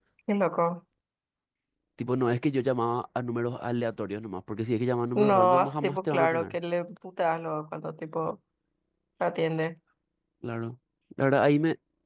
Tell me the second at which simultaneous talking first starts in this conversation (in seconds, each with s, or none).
5.2 s